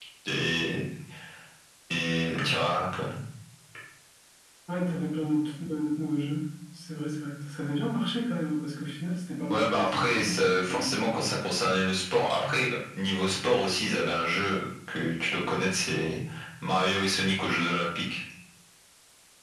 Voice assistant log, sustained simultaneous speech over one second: present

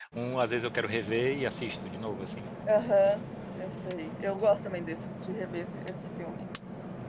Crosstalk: none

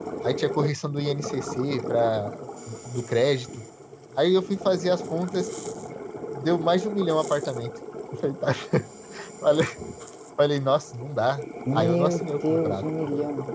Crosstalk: present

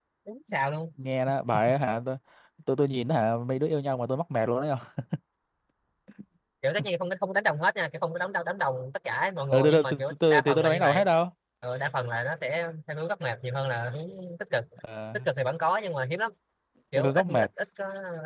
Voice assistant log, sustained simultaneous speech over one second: present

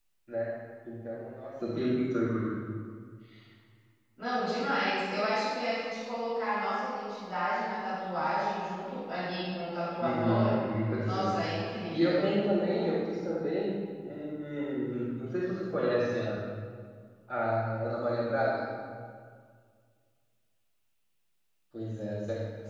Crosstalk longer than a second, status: none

